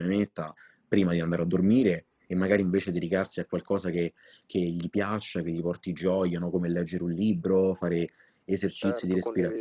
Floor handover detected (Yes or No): No